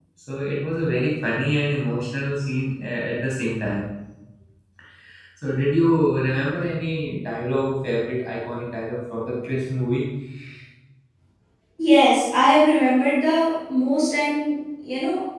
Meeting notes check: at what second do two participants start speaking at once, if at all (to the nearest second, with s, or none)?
none